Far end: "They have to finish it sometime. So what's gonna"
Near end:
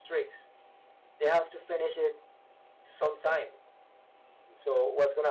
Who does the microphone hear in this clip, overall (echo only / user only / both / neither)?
echo only